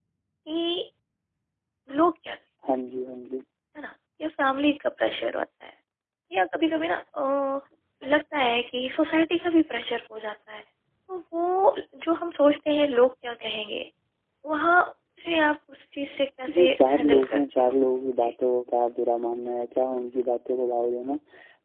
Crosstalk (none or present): present